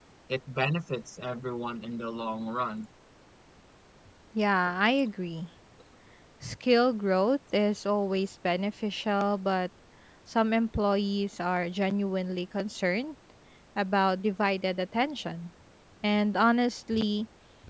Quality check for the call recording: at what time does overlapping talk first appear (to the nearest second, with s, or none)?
none